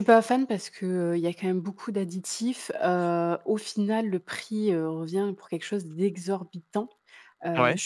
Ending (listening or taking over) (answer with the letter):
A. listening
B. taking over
A